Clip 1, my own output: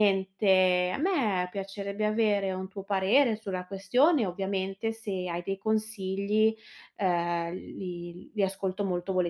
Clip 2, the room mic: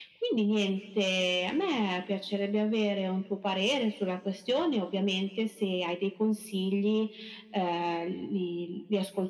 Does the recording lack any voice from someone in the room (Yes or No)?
Yes